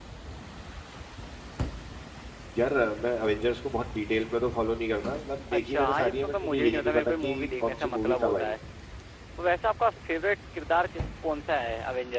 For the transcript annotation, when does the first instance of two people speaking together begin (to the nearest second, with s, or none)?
6 s